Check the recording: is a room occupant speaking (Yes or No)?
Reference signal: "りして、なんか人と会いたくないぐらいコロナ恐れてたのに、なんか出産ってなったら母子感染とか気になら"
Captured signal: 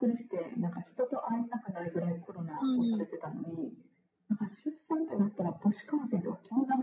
Yes